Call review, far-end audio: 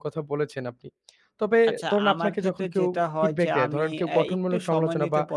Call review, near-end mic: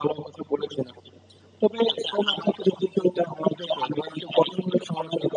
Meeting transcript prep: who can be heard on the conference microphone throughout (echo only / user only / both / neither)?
echo only